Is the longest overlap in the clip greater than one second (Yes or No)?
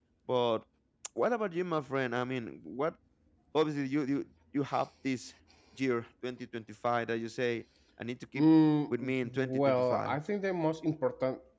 Yes